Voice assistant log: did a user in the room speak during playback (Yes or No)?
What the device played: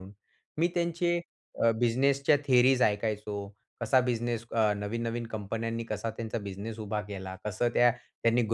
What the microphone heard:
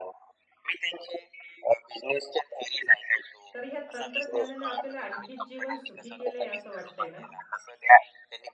Yes